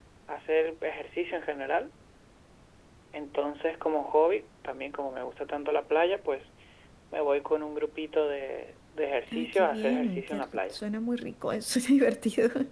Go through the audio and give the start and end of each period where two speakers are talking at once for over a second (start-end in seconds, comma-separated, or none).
9.3-10.8